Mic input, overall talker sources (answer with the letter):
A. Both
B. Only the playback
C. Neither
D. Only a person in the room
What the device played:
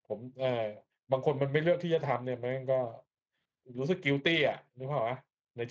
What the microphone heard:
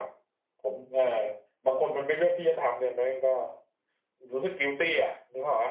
B